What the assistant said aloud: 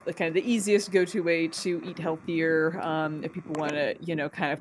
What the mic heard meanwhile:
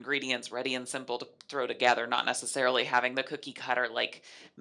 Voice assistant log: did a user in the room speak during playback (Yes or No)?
Yes